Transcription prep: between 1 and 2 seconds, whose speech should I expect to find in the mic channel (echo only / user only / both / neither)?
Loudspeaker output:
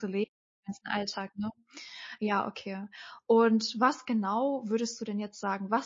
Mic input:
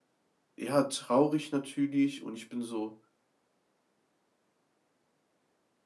user only